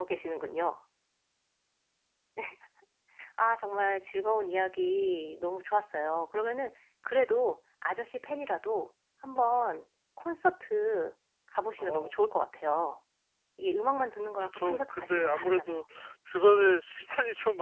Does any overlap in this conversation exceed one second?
Yes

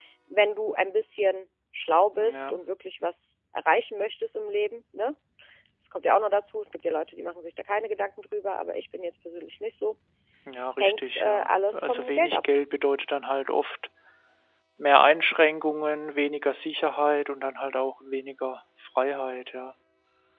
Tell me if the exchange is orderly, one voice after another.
No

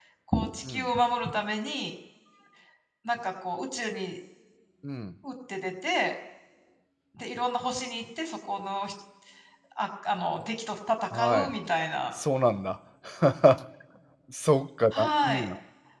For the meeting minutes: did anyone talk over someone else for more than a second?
No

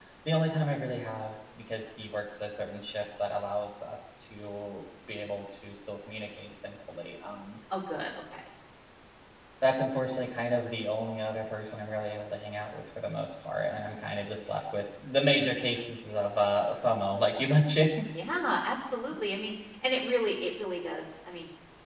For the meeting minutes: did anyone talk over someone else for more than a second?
No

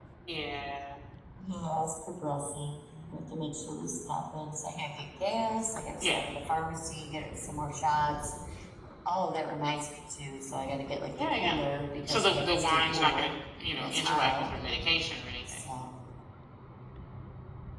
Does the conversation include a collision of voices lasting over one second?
Yes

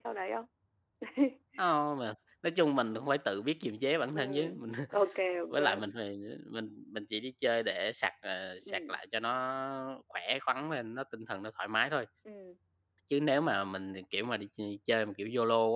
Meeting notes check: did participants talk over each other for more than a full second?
No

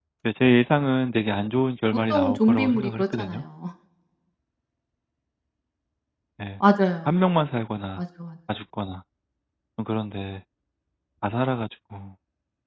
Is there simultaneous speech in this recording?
Yes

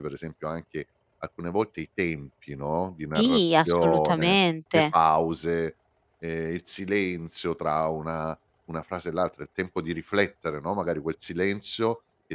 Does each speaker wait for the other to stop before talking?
No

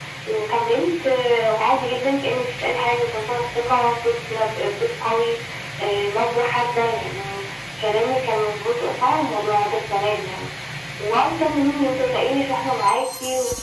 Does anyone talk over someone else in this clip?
No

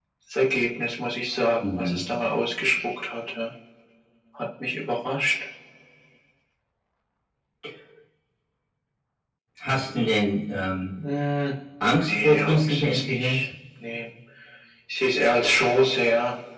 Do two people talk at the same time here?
Yes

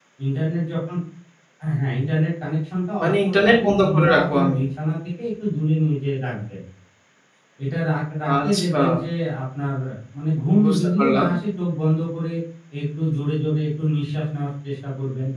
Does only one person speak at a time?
No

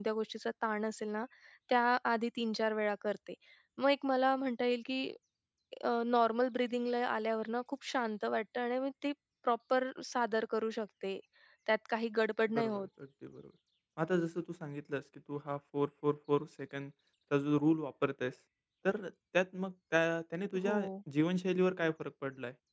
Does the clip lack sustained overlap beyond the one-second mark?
Yes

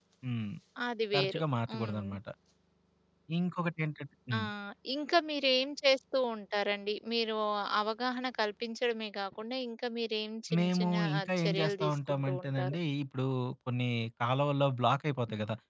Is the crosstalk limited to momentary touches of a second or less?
No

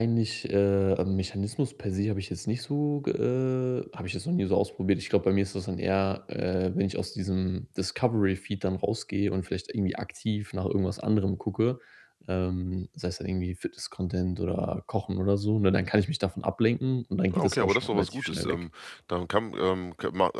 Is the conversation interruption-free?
No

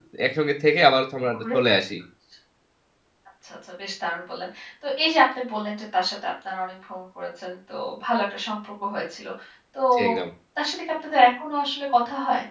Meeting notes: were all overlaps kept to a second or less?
Yes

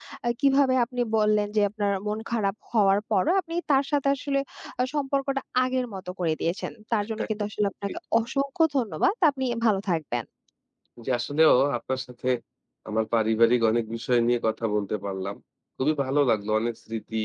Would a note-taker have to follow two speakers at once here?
No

